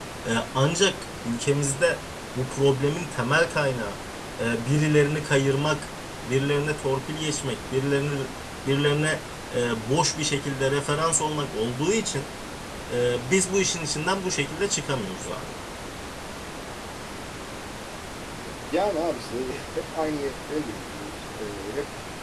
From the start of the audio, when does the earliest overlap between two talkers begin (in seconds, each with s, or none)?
none